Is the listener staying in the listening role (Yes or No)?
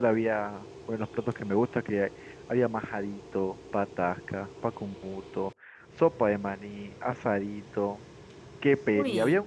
Yes